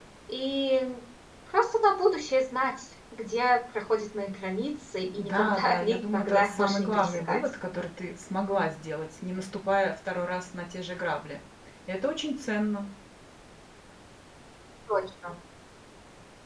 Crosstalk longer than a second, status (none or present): present